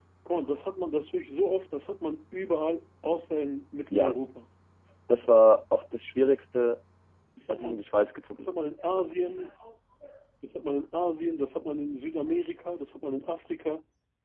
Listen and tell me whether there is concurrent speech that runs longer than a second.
No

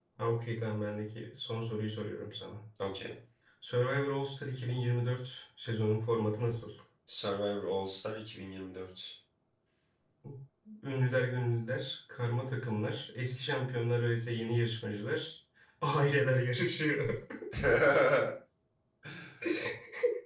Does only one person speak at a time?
Yes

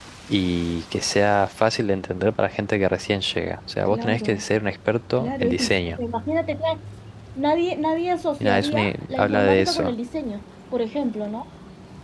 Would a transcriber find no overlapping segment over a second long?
No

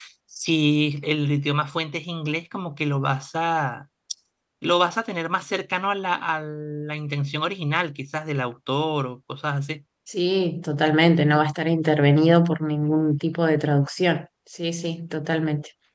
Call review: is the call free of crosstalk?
Yes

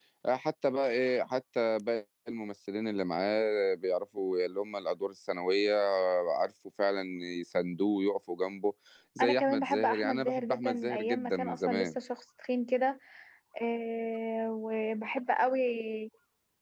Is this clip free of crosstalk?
No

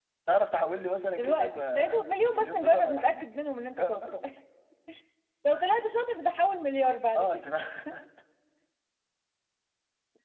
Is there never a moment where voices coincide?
No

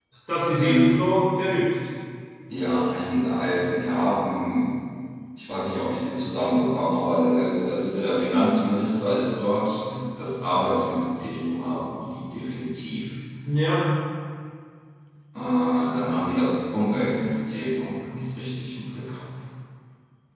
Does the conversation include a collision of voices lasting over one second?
No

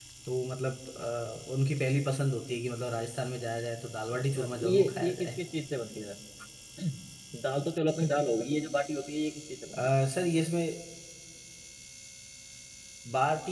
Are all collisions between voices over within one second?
No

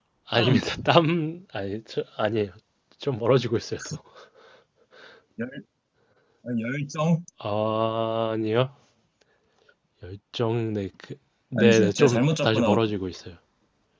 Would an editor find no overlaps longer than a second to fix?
No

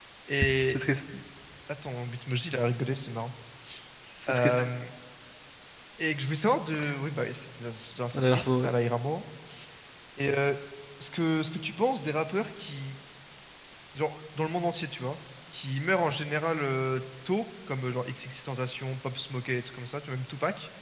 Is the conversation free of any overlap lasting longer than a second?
Yes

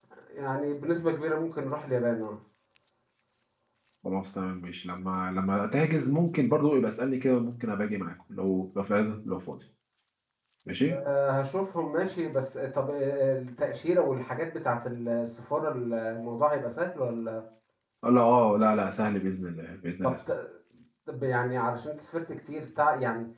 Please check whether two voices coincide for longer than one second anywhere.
No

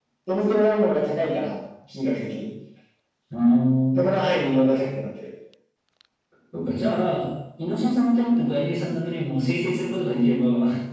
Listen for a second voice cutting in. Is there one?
No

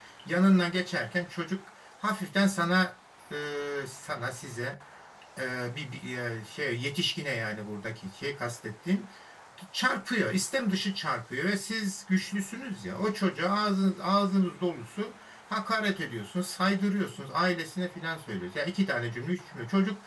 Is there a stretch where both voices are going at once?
No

